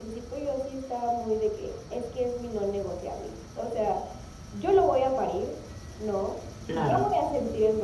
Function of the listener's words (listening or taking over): listening